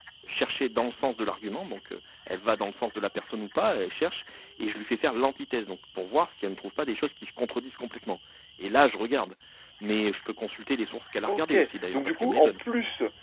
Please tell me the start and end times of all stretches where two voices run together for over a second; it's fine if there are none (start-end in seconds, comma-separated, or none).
11.2-12.6